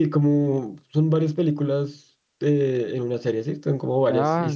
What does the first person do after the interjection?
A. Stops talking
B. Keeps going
A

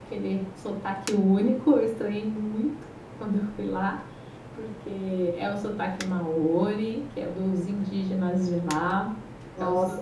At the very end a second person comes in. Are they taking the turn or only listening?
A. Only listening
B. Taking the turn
B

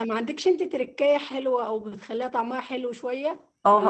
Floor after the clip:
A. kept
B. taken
B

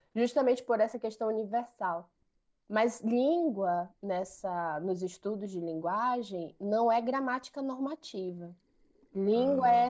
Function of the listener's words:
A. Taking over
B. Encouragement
B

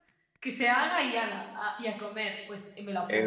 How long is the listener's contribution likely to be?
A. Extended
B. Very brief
A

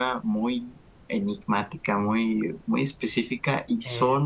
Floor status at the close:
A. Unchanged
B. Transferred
A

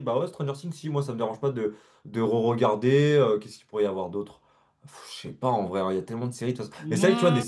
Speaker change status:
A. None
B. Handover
A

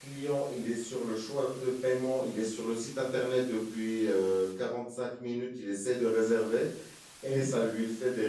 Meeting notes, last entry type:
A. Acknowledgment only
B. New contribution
A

